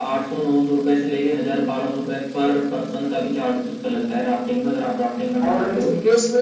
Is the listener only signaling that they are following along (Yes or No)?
No